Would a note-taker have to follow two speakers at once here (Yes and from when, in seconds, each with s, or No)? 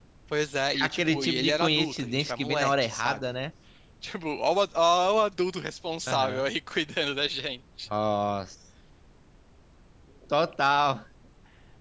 Yes, from 0.7 s